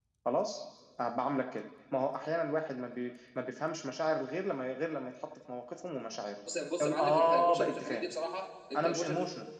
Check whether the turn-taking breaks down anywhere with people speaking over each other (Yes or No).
Yes